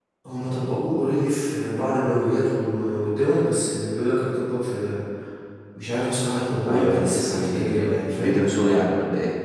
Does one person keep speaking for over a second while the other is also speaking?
Yes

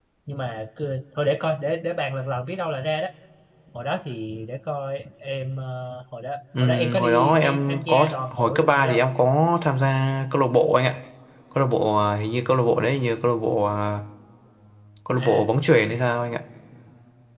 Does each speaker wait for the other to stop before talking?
No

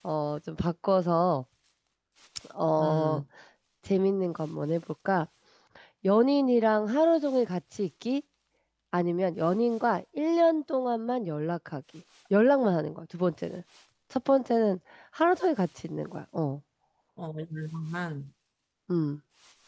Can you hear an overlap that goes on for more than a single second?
No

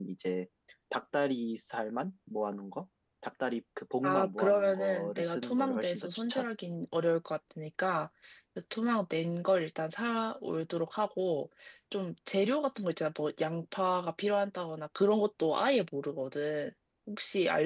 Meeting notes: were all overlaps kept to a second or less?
No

